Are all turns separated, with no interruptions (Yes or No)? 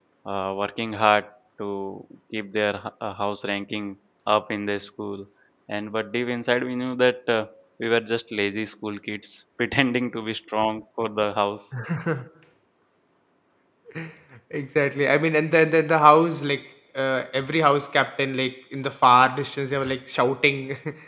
Yes